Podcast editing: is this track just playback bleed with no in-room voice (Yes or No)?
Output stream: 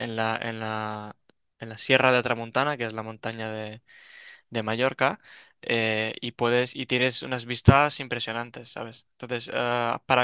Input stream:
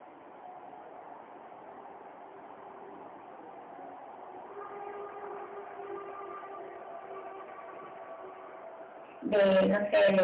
No